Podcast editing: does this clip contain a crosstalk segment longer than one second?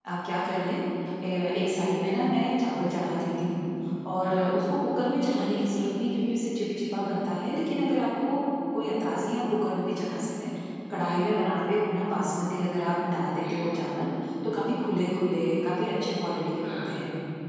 No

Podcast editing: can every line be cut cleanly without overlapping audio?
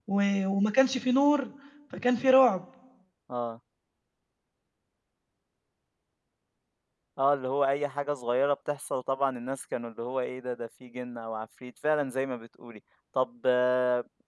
Yes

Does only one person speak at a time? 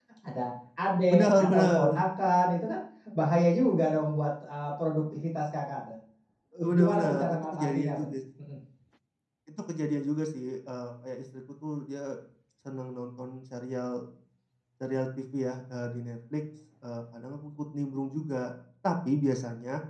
No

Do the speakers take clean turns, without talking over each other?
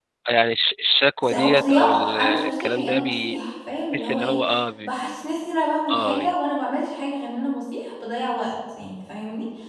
No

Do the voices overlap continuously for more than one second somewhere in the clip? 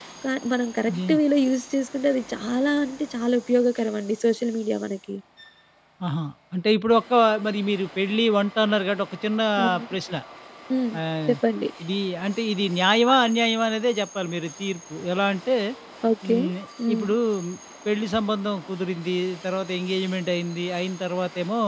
No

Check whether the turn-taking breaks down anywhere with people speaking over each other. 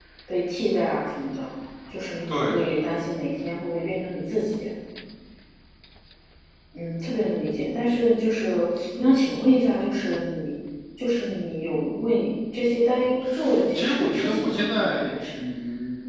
Yes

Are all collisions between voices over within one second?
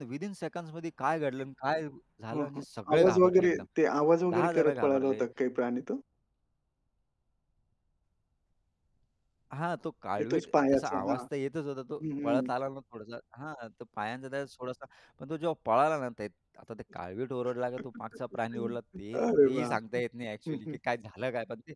No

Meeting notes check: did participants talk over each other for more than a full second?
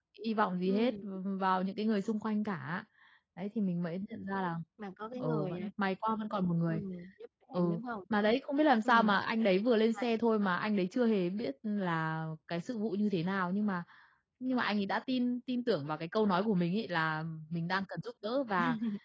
No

